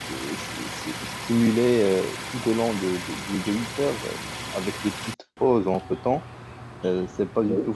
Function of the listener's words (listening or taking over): listening